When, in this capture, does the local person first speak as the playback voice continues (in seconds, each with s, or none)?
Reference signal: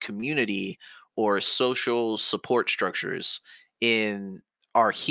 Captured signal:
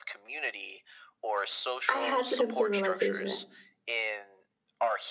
1.9 s